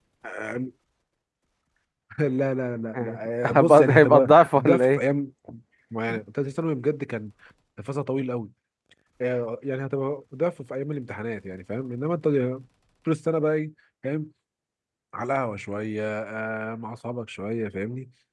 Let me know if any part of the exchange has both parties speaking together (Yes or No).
Yes